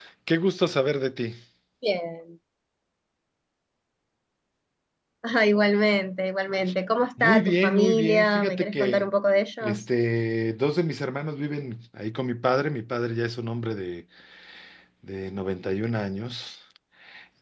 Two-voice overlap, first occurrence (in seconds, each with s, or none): 7.2 s